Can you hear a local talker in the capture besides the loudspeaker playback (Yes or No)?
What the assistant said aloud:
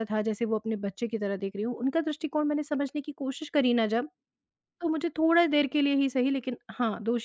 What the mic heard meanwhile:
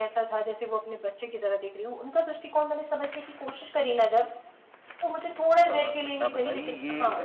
Yes